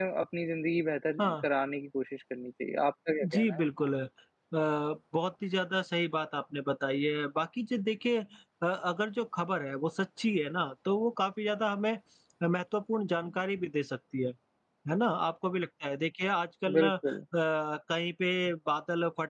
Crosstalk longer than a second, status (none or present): none